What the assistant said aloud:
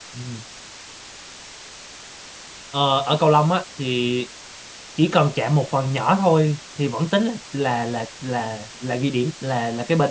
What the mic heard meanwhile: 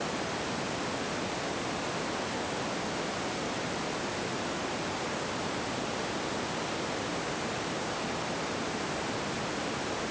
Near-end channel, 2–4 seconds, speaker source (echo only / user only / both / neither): neither